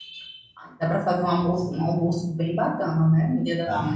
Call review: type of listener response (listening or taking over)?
taking over